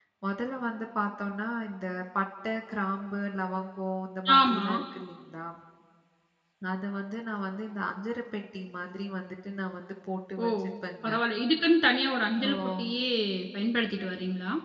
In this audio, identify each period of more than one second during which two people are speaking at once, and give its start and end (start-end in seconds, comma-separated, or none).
none